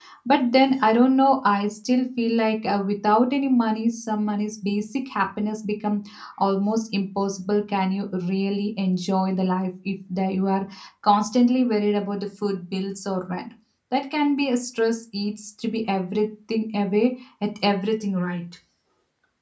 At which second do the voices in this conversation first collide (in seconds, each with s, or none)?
none